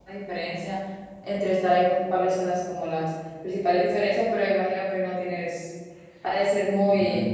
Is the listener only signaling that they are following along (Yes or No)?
No